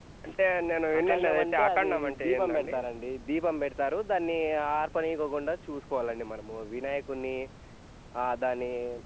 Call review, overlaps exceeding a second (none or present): present